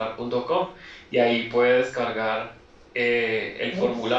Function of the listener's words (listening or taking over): listening